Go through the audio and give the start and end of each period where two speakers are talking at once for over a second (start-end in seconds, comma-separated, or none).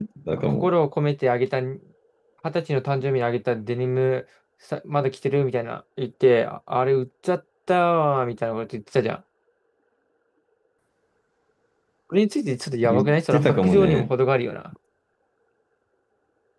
12.8-14.1